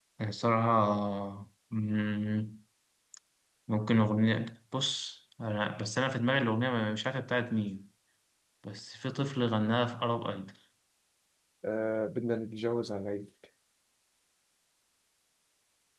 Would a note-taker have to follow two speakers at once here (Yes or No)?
No